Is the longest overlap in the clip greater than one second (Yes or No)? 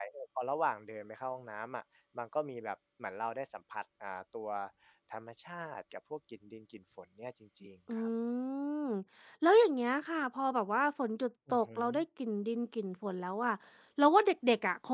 No